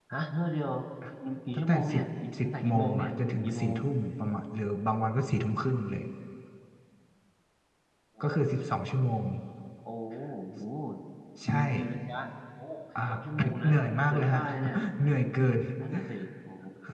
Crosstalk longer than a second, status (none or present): present